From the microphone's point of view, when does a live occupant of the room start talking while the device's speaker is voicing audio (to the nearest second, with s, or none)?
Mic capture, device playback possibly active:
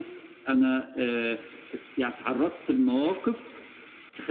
none